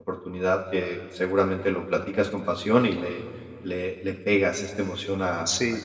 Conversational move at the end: taking over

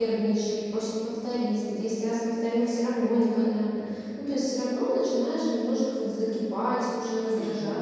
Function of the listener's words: listening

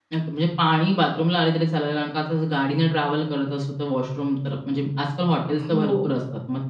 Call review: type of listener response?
listening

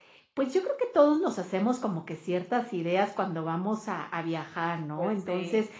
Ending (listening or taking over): listening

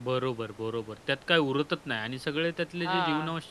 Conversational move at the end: listening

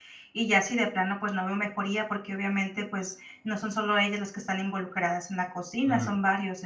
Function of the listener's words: listening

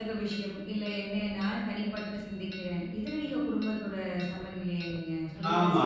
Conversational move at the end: taking over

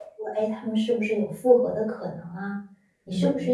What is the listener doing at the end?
listening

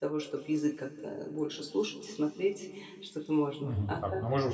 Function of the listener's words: taking over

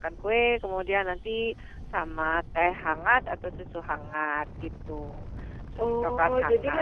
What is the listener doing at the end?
taking over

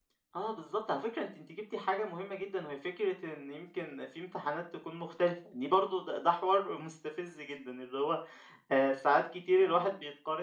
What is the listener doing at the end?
listening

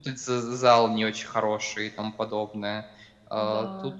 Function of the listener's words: listening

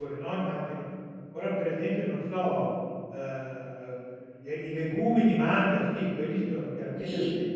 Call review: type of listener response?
listening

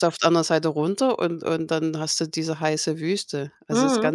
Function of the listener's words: taking over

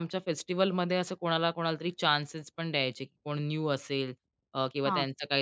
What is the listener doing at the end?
listening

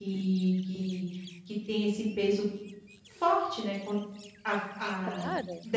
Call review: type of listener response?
listening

